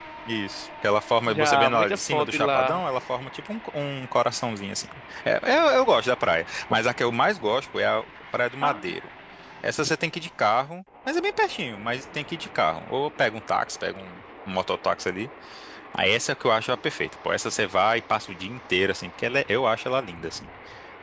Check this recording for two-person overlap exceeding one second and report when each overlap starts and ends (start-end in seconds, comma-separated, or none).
1.3-2.8